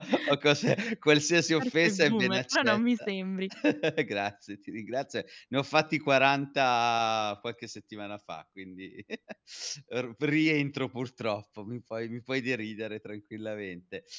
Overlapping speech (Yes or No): Yes